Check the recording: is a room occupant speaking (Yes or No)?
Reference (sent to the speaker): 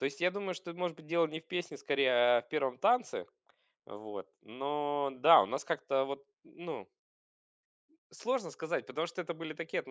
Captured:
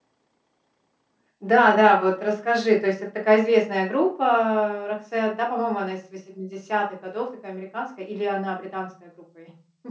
Yes